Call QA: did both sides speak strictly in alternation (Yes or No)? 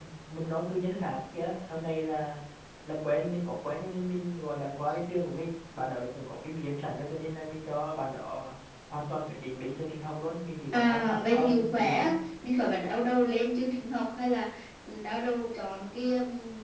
No